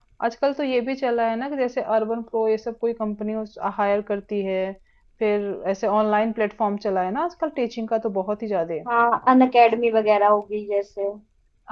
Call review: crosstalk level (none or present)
none